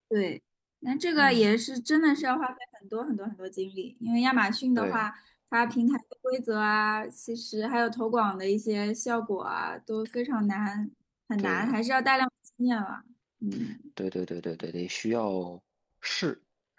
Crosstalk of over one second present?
No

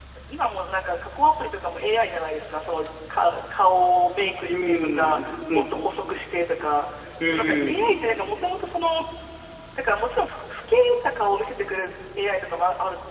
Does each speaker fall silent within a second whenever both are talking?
No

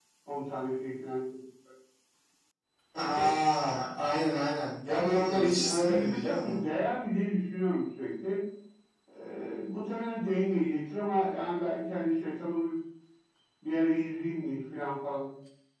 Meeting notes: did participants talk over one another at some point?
Yes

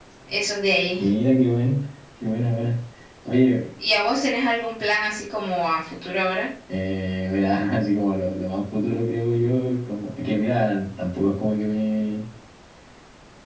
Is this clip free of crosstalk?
Yes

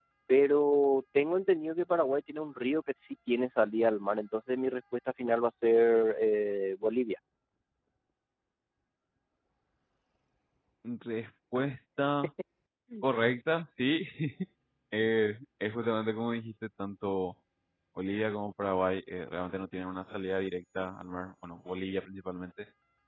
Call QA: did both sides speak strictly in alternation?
Yes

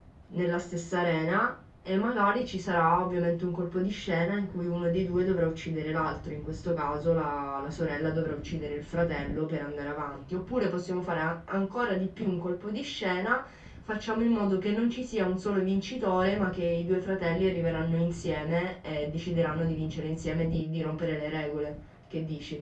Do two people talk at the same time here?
No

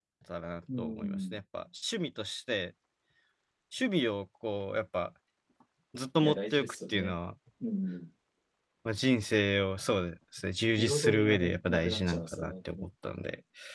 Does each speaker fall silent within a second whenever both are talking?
No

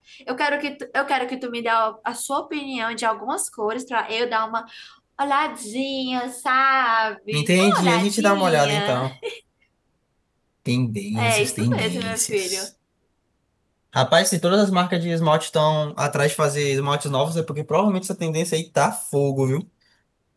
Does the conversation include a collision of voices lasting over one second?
Yes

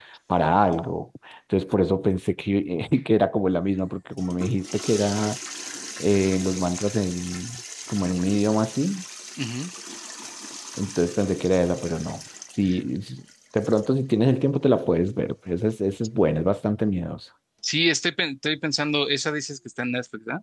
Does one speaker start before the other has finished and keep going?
No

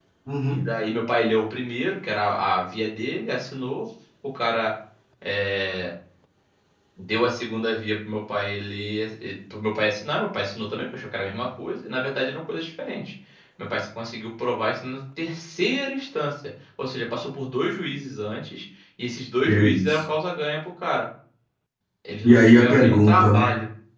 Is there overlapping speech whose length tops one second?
Yes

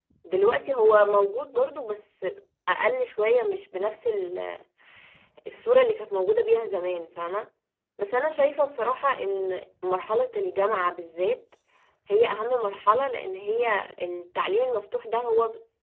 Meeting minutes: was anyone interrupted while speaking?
No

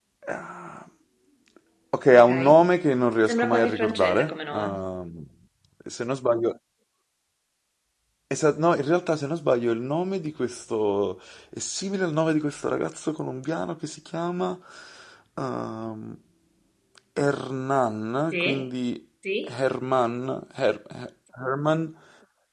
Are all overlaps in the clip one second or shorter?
No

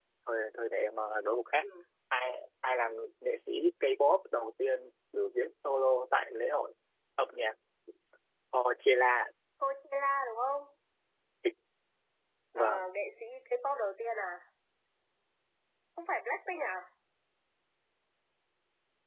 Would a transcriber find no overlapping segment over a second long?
Yes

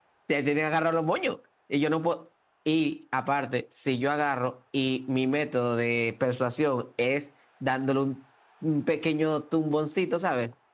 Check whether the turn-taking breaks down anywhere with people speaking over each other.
No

